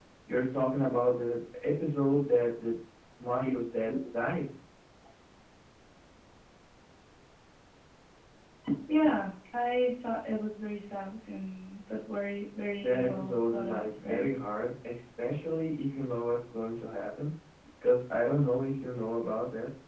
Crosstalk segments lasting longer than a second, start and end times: 12.8-14.3

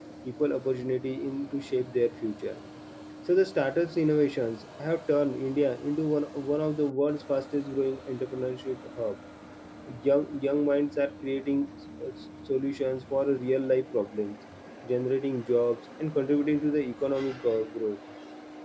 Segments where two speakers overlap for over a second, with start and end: none

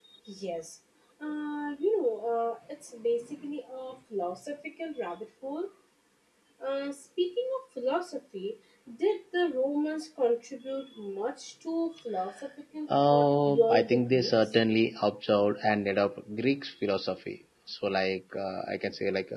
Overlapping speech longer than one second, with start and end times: 13.1-14.3

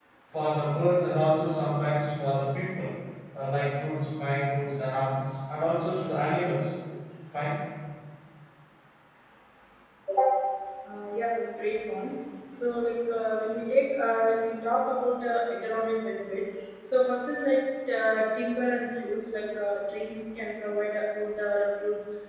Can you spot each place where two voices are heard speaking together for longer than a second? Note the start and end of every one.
none

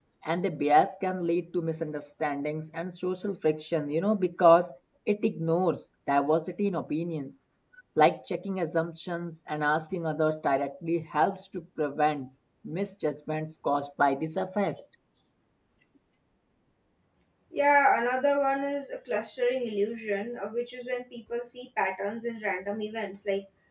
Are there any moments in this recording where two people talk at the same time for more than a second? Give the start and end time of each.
none

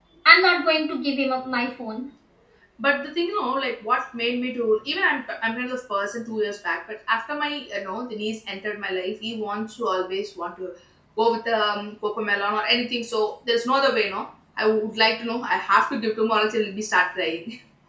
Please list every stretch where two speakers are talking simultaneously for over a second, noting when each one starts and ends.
none

